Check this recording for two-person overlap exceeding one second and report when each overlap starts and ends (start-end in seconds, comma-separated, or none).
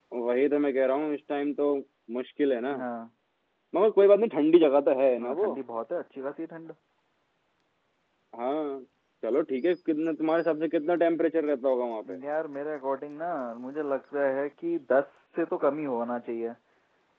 none